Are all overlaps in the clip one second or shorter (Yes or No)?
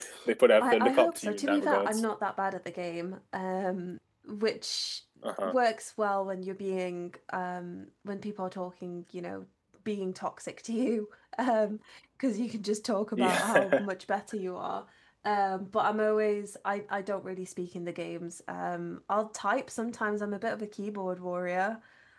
No